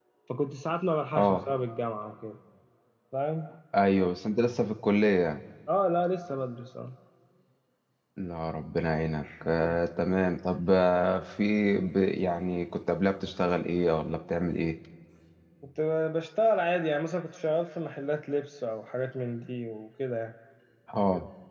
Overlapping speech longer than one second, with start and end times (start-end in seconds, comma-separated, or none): none